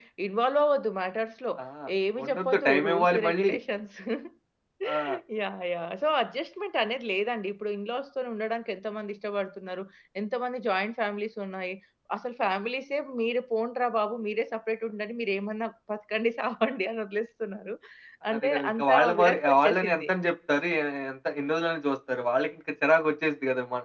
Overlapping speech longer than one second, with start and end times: 2.2-3.5, 18.3-20.1

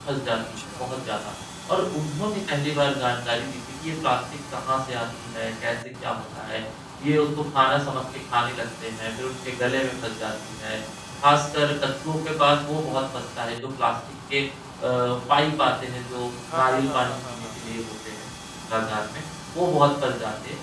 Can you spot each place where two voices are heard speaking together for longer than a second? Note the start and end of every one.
16.5-17.7

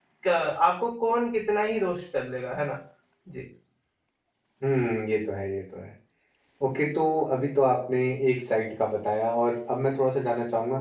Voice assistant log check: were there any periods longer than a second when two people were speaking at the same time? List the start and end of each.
none

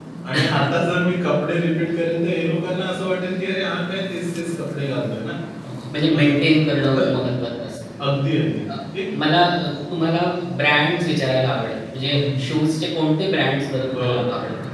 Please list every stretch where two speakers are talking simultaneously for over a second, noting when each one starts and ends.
none

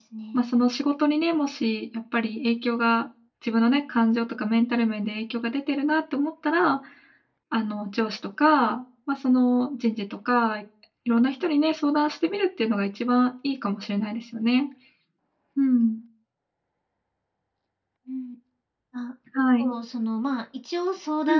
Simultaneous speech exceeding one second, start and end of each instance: none

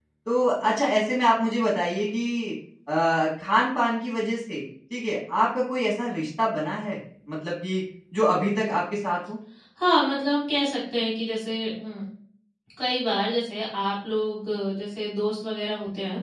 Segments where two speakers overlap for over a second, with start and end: none

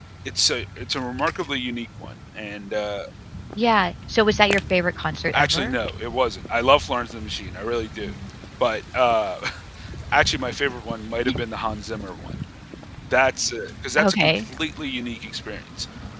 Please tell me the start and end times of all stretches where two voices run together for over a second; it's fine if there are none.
none

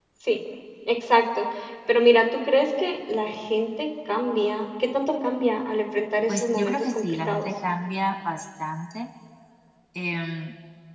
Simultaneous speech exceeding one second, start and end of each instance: 6.3-7.5

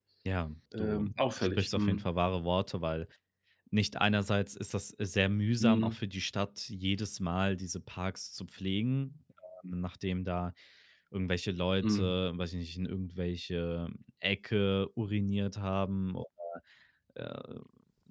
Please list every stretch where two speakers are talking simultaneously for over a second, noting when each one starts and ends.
0.8-2.0

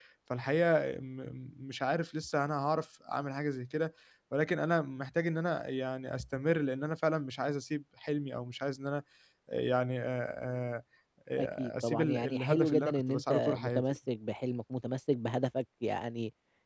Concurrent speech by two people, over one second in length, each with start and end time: 11.4-13.8

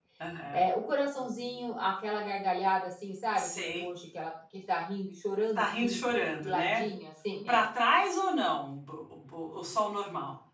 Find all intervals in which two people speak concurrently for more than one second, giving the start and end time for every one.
none

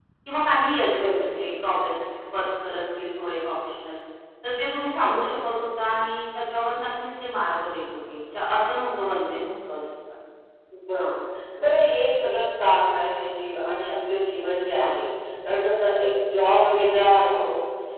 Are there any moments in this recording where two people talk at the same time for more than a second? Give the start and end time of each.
none

